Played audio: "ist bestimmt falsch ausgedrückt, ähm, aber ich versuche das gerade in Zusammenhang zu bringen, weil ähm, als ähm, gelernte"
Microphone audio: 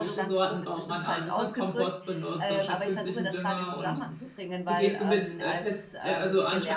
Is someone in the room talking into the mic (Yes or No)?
Yes